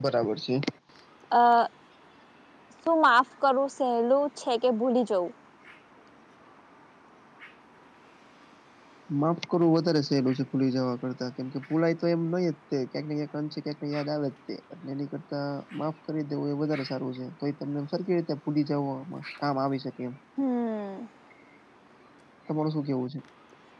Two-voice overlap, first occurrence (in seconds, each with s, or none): none